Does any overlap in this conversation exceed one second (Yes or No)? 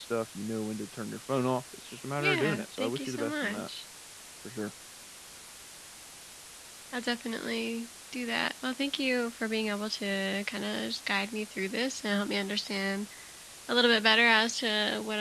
Yes